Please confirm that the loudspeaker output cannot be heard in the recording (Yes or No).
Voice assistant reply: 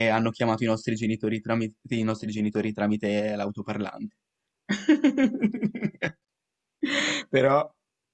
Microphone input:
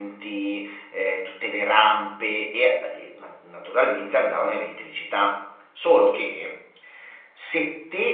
Yes